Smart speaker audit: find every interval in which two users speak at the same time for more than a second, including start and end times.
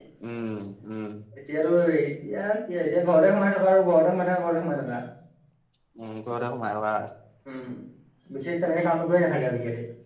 none

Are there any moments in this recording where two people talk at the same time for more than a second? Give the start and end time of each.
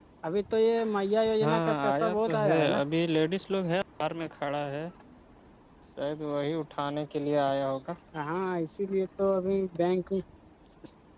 1.4-2.8

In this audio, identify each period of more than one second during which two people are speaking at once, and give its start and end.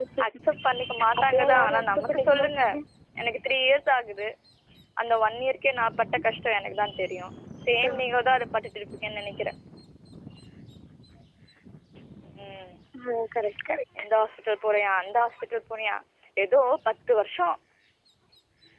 1.2-2.5

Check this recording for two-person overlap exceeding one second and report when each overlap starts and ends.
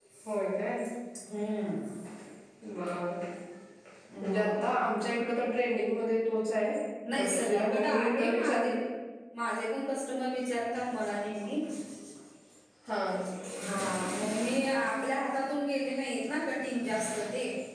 7.2-8.7

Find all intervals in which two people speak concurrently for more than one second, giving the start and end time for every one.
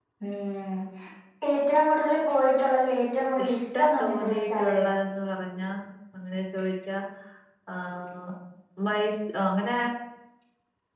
3.4-4.9

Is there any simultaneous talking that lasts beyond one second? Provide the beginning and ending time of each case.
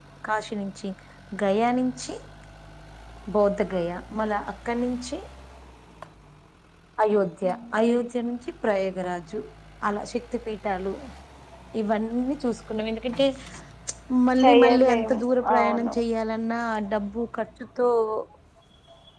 14.4-15.9

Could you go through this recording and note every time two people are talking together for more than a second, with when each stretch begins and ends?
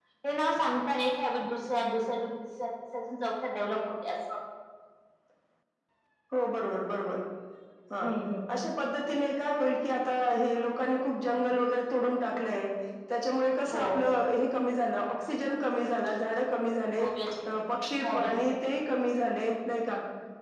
none

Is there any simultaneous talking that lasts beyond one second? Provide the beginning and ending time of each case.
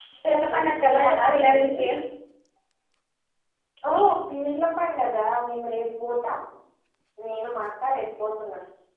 0.5-1.8

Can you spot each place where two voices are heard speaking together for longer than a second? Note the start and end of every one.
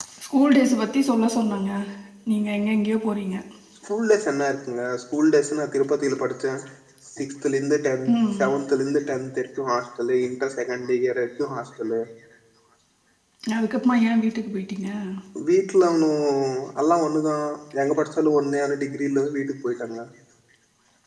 none

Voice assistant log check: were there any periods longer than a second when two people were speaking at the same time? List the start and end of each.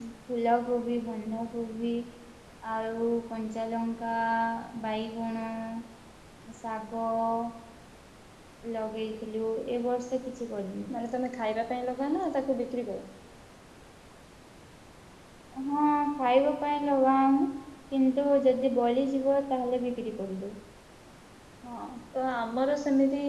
none

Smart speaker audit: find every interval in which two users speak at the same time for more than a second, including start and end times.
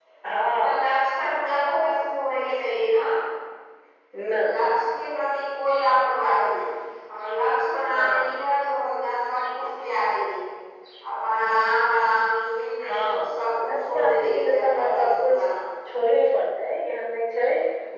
12.8-15.4

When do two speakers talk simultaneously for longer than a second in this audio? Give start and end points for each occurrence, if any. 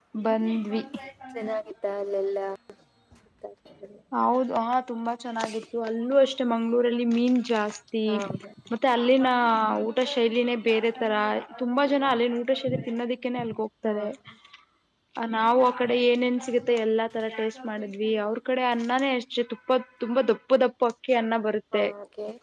none

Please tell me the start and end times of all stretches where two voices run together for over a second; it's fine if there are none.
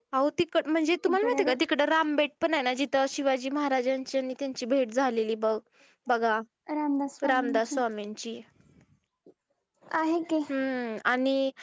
none

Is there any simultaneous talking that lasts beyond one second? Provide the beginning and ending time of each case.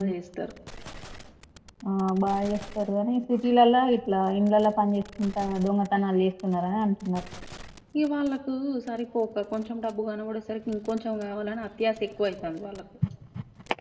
none

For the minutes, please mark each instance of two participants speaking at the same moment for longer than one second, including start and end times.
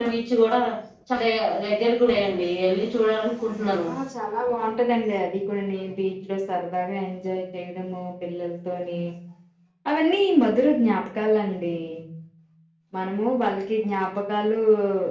none

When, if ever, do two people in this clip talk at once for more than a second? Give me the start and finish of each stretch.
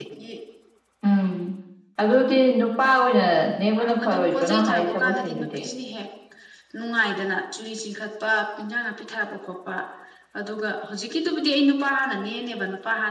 4.0-5.6

